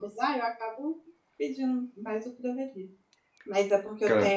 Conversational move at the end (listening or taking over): listening